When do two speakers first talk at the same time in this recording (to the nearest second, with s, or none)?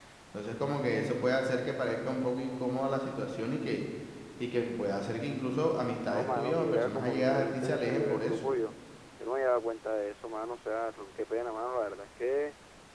6 s